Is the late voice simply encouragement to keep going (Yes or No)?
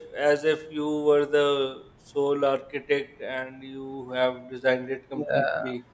No